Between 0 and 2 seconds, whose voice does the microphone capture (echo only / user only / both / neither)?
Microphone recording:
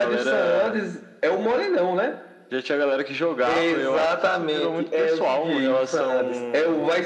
echo only